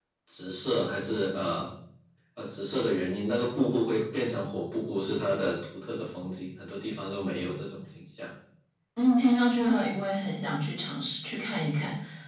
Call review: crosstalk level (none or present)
none